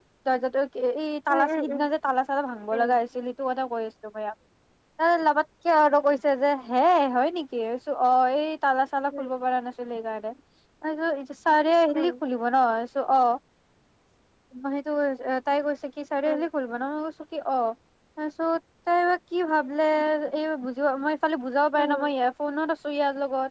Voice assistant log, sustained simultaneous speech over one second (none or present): none